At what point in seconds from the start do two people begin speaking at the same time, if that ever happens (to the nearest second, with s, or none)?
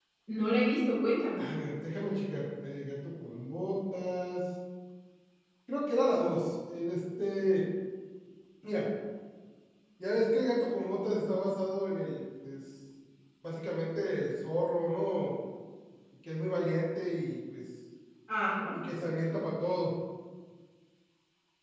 none